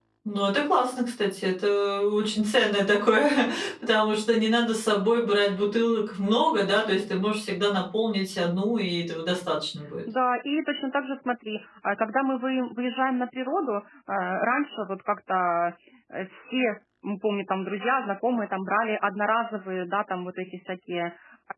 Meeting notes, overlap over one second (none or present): none